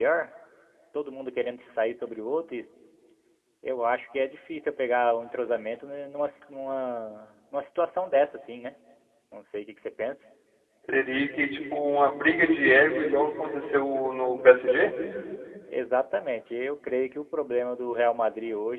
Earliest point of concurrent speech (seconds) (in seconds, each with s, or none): none